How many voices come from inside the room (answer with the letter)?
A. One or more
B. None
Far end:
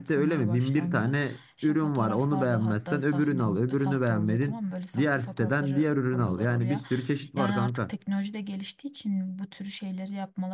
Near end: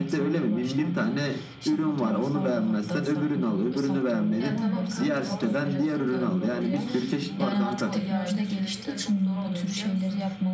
A